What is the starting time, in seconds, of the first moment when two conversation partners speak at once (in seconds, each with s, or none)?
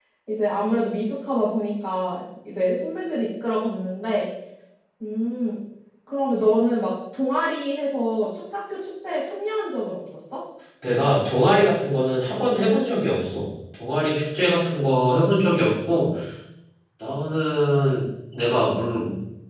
none